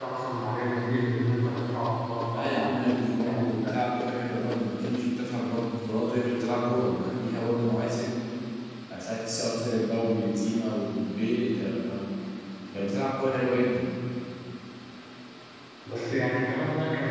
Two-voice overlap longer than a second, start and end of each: none

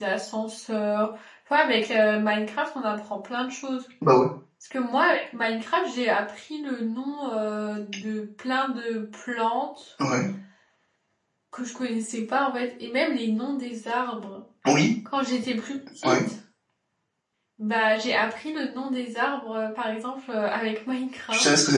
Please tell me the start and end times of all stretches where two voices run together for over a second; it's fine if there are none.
none

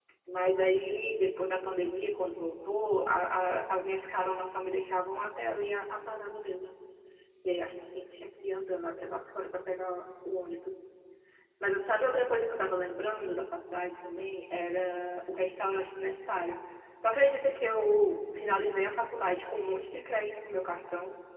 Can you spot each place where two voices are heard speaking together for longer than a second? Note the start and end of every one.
none

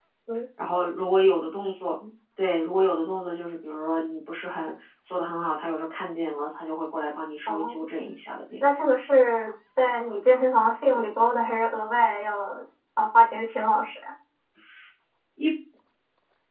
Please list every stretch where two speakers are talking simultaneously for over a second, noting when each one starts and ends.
none

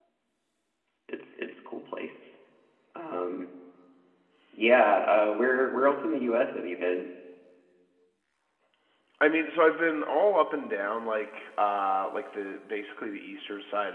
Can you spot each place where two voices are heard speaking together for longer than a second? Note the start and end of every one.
none

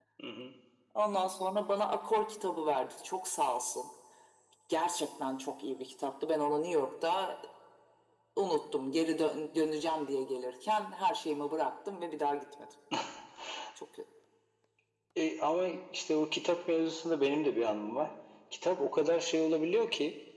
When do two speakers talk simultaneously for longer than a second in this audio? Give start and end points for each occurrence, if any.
none

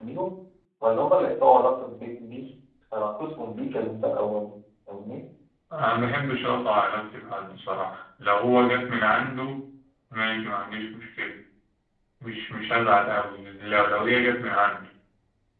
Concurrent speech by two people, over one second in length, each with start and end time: none

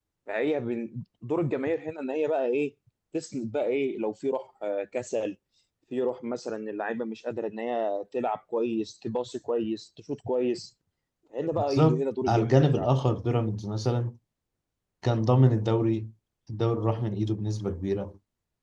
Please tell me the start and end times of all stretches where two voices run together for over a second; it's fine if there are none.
11.5-12.9

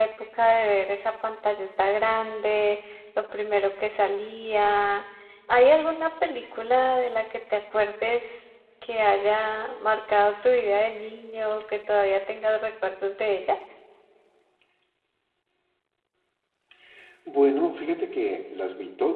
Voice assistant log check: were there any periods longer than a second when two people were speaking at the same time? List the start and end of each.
none

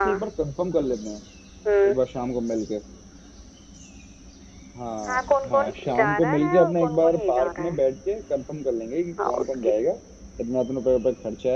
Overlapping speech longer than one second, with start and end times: 5.1-7.8

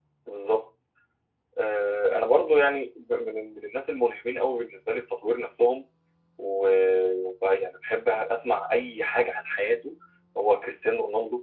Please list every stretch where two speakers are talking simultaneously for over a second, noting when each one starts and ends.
none

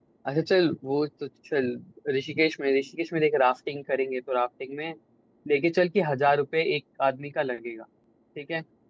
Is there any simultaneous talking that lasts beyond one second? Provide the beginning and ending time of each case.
none

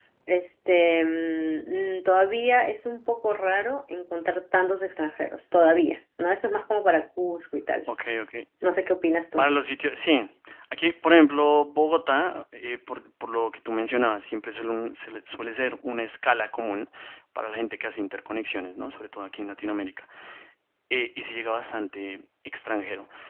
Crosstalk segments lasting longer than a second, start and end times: none

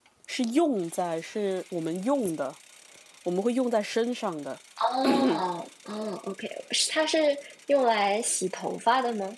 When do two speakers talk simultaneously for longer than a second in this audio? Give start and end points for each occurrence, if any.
none

